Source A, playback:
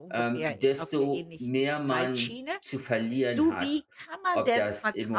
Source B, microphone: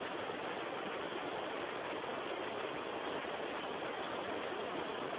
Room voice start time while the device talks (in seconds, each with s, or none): none